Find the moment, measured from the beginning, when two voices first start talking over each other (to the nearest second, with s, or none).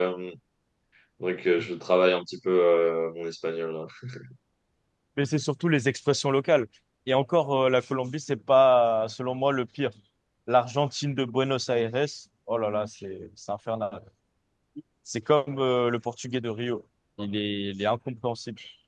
none